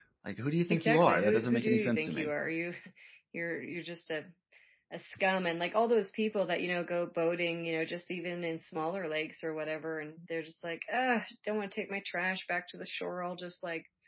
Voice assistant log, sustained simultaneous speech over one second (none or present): present